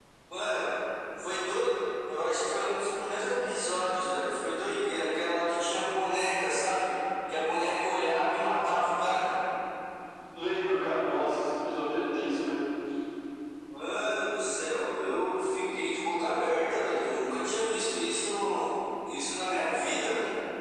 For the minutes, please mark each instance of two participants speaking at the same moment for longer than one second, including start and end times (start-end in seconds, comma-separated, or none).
none